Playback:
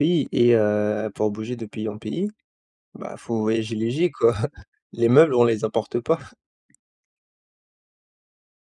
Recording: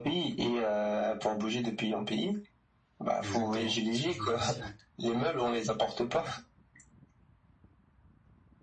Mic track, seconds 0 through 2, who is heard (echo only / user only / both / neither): echo only